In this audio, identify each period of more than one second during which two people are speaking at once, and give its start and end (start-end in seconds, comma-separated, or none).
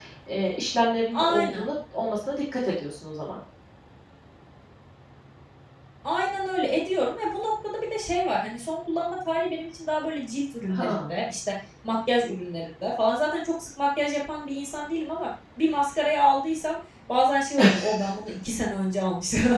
none